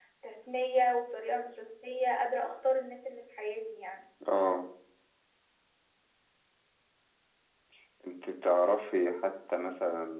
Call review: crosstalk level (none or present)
none